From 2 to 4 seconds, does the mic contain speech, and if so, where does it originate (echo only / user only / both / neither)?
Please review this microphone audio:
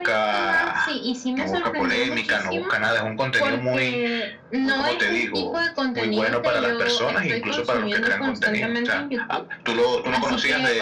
echo only